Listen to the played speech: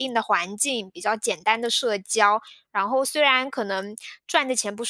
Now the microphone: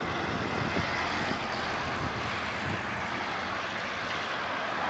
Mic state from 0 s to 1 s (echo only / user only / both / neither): neither